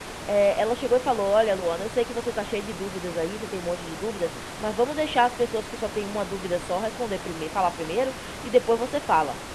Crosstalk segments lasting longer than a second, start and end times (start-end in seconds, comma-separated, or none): none